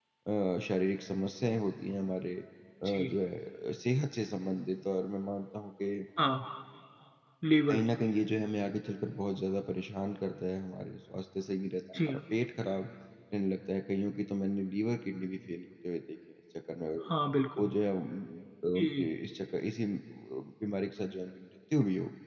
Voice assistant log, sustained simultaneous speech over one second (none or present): none